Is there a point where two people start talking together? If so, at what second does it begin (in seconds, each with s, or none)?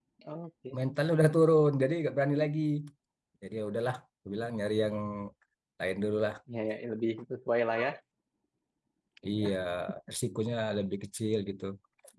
none